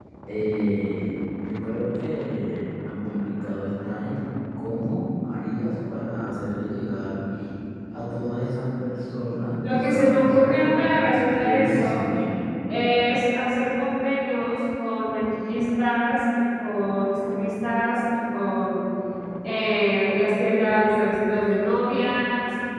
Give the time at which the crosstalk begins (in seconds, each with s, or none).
9.6 s